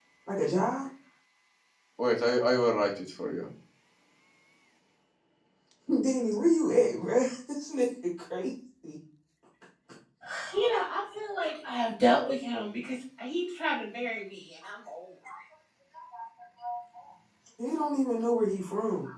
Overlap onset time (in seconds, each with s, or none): none